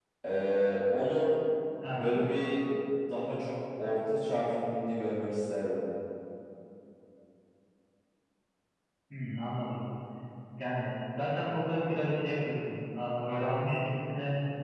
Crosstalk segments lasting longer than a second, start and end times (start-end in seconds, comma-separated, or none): none